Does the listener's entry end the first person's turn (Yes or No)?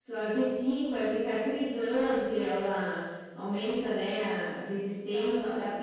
No